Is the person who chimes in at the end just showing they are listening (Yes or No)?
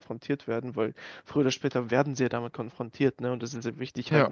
Yes